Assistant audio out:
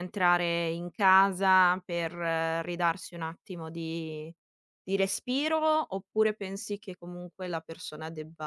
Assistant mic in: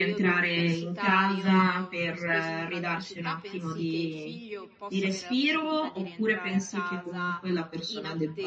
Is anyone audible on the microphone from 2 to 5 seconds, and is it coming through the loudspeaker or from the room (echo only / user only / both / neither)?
both